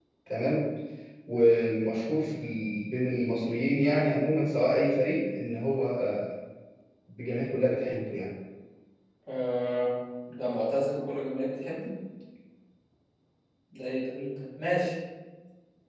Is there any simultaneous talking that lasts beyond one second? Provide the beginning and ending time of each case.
none

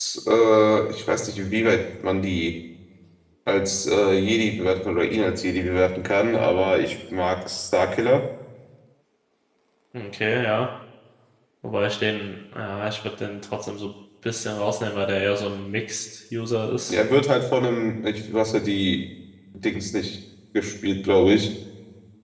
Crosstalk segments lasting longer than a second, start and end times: none

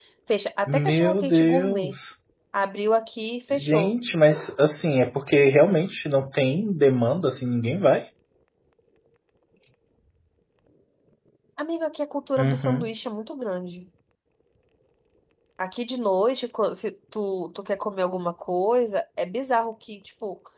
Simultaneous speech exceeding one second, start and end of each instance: 0.7-1.9

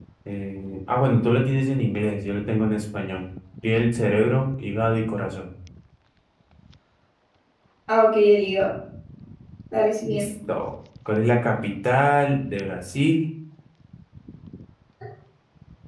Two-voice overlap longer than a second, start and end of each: none

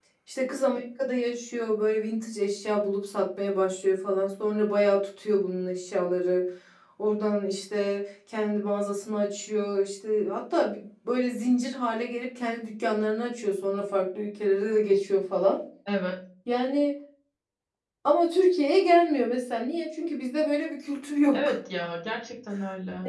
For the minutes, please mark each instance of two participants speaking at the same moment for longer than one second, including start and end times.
none

